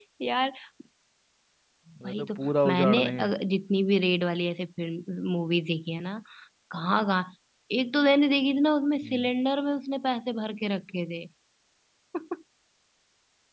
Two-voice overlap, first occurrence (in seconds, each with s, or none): 2.1 s